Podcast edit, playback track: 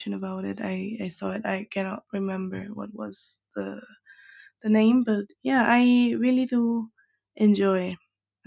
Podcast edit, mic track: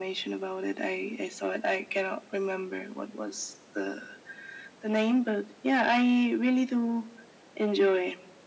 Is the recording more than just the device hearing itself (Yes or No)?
No